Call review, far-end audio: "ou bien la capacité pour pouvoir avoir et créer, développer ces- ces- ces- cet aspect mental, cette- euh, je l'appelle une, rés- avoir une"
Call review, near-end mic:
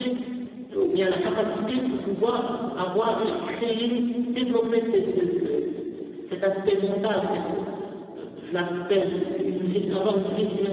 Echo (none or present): present